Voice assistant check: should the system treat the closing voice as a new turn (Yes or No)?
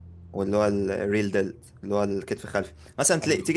No